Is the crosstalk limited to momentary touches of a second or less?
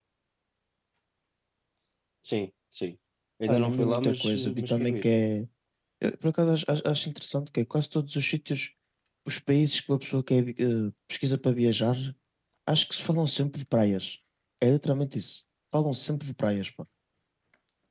No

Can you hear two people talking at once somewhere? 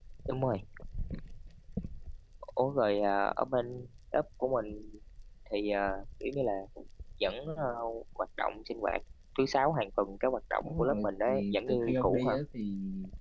Yes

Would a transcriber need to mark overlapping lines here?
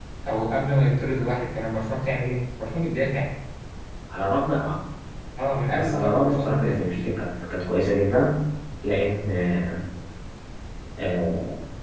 Yes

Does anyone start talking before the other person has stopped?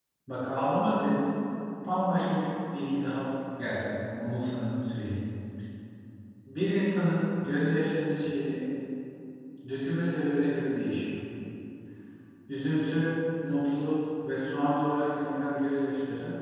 No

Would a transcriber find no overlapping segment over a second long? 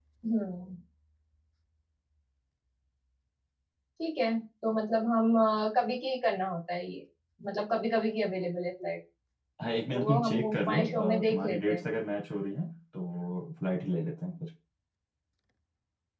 No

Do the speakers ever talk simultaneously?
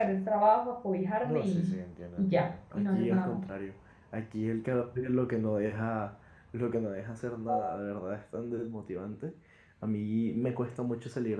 Yes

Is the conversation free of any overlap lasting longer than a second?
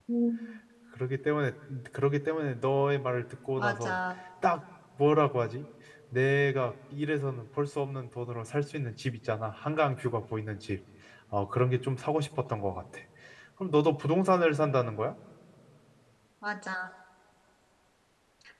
Yes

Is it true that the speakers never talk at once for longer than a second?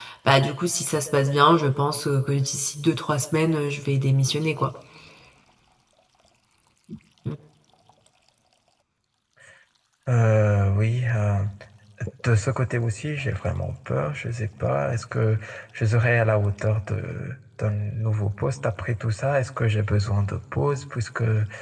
Yes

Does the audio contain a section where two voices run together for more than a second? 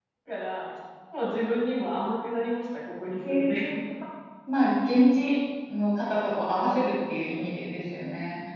No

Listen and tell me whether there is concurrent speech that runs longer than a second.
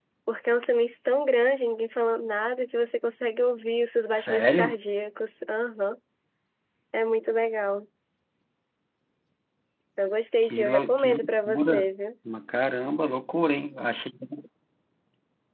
Yes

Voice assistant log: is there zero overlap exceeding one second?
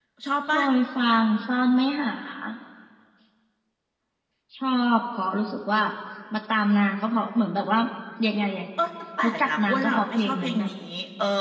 No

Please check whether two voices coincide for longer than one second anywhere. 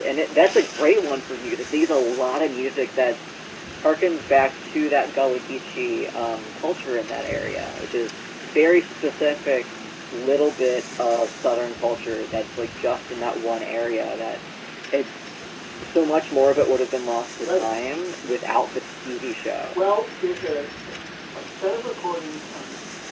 No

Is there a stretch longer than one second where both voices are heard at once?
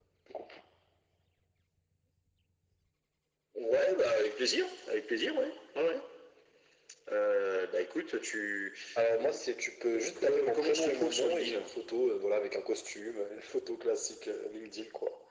Yes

